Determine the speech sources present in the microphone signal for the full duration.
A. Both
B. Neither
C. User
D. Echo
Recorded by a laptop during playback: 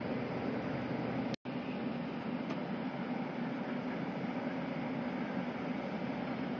B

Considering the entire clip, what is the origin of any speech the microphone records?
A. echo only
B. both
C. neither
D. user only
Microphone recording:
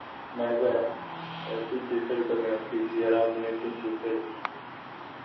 A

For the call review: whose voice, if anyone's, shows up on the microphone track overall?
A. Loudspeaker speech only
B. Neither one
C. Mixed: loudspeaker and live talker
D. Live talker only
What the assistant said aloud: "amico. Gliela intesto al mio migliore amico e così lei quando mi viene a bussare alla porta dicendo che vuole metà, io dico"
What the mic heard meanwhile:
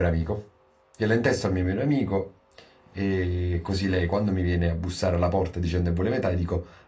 A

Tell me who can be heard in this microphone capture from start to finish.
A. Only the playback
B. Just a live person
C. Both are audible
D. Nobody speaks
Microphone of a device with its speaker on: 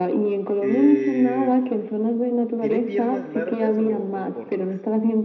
C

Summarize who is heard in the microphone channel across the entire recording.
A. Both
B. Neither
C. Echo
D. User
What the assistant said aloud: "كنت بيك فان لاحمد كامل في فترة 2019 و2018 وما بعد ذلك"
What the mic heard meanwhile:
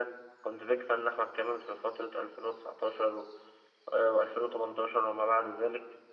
C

